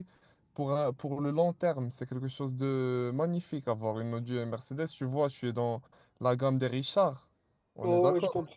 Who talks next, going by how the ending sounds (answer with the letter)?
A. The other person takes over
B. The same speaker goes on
A